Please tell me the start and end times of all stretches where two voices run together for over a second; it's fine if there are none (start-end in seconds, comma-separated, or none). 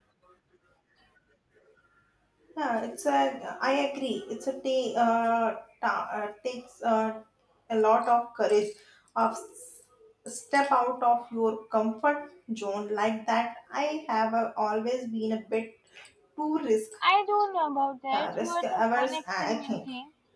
18.1-19.8